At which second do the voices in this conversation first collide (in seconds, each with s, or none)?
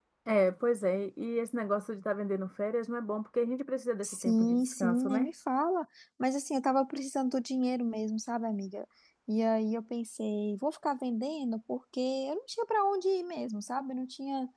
4.0 s